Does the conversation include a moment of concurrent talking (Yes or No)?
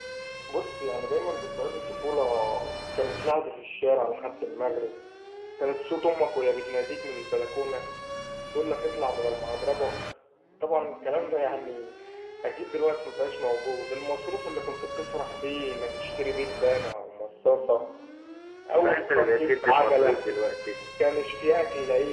Yes